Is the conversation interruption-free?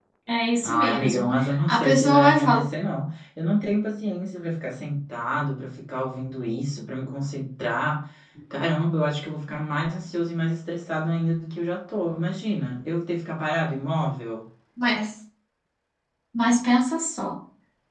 No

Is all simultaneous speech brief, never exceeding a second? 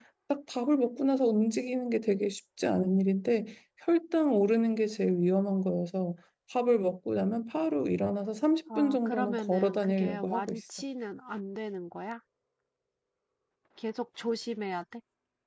No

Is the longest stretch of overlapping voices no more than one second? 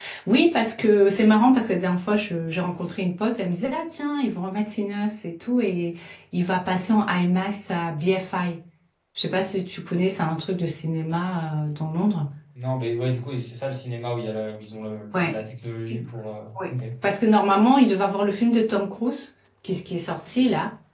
Yes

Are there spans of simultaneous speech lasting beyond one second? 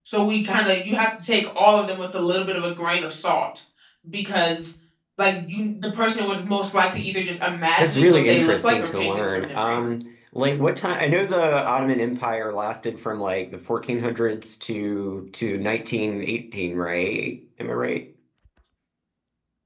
Yes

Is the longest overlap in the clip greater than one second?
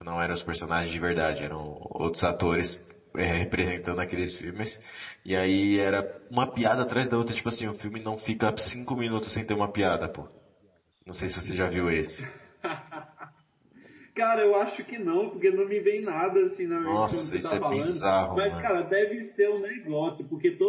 Yes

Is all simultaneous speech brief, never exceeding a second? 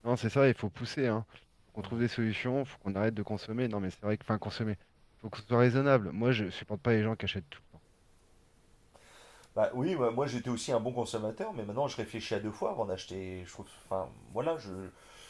Yes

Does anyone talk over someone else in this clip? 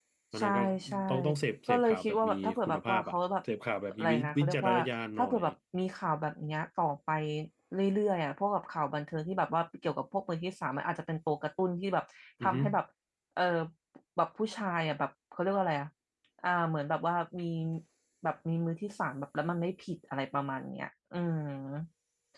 Yes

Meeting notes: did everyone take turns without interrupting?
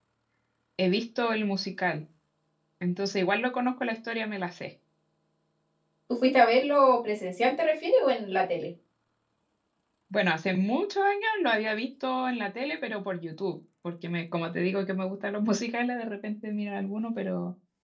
Yes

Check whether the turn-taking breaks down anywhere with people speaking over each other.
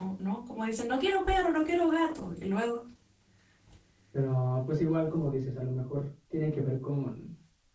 No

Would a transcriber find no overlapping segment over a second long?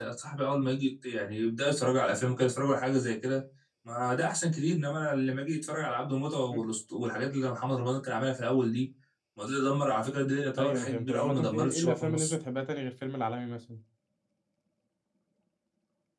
No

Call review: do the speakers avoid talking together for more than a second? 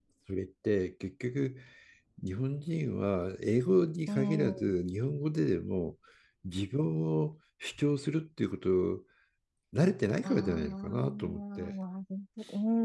No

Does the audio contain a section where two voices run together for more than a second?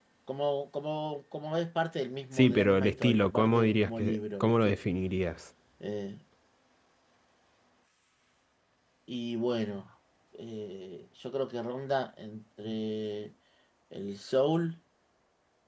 Yes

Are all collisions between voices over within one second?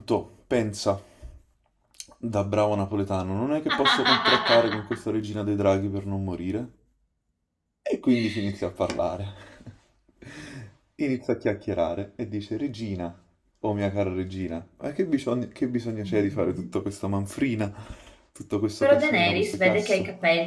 No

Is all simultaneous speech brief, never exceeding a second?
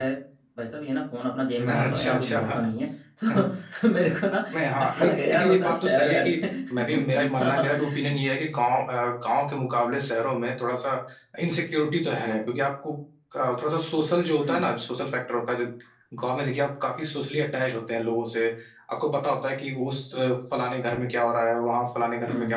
No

